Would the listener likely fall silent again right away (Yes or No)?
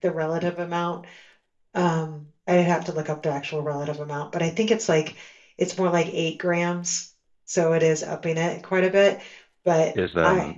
No